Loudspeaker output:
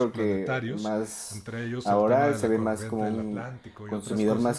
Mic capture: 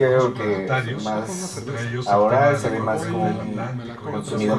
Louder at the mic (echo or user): echo